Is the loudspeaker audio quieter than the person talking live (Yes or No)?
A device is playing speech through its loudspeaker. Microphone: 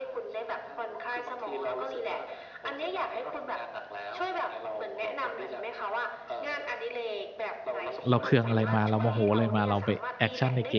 Yes